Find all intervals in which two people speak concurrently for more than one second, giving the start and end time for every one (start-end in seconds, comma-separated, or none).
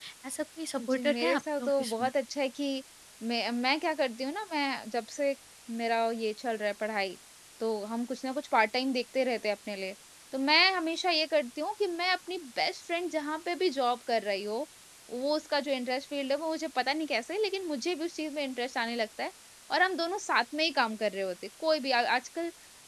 0.9-2.1